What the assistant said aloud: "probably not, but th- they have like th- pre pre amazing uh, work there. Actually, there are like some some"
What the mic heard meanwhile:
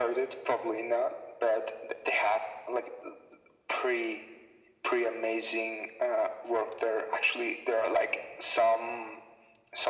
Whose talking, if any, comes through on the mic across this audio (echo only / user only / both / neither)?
echo only